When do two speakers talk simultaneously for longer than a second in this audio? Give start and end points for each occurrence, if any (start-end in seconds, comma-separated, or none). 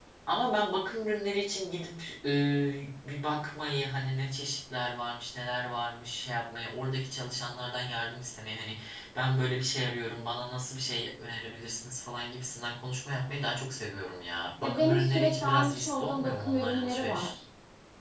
14.6-17.3